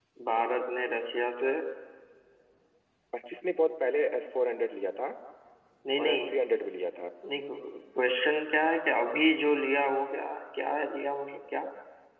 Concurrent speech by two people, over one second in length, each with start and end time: none

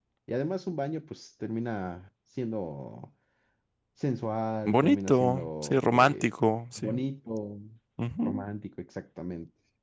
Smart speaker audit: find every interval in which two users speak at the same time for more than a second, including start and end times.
4.6-6.3

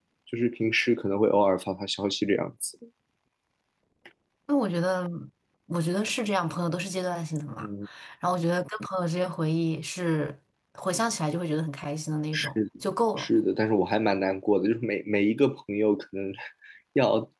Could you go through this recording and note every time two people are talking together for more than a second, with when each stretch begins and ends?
none

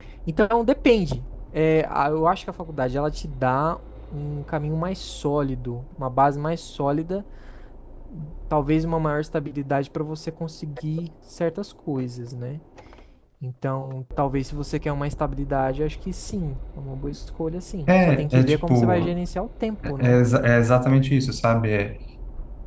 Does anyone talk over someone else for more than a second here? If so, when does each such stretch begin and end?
17.9-19.1

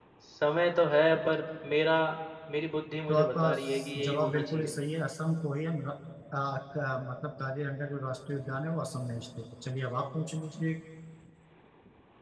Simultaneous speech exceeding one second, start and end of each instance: 3.1-4.7

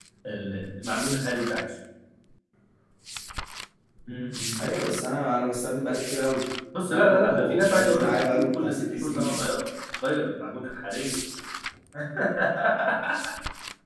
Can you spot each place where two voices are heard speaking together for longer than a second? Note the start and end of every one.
6.8-9.4

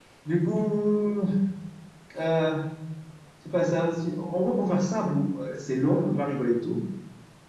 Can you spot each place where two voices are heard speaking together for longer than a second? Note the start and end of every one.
none

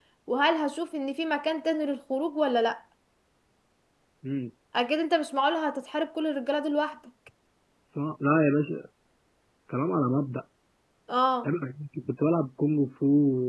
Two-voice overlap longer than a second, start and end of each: none

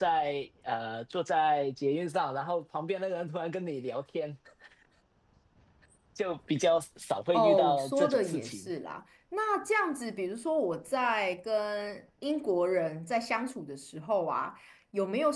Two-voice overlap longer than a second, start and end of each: 7.3-8.7

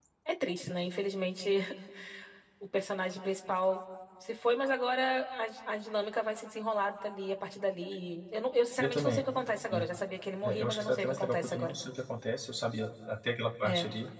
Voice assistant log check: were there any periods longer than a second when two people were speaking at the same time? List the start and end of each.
10.4-11.7

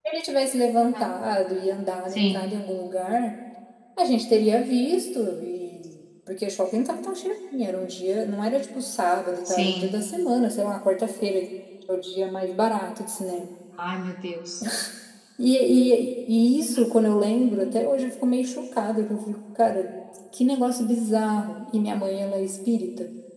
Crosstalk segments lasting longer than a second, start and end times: none

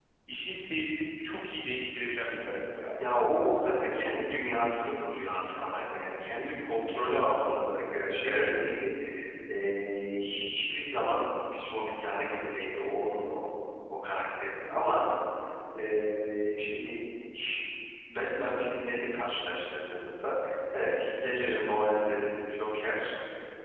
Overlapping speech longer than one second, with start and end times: none

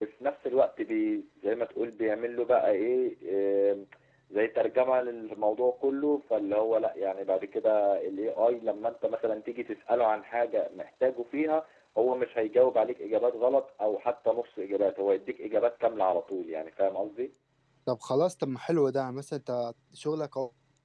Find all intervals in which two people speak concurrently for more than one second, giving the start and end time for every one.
none

